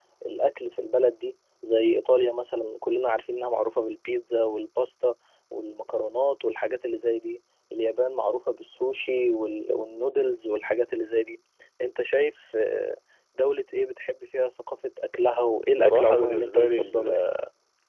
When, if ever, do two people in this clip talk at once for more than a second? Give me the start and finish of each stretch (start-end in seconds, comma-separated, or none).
15.8-17.2